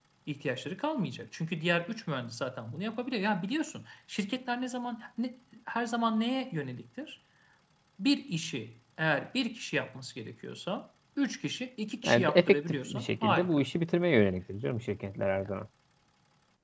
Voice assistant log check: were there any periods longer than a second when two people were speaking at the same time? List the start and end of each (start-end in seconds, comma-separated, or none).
12.0-13.6